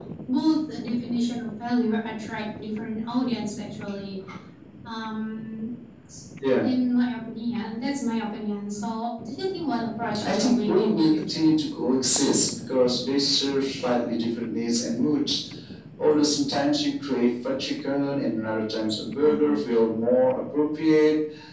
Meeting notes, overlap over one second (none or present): present